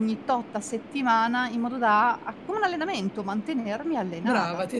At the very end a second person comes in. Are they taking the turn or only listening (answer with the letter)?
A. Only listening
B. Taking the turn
B